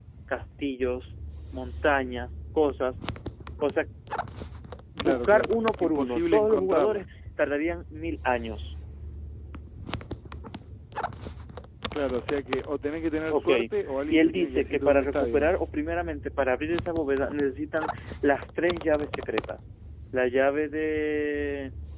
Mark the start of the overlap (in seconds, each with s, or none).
5.0 s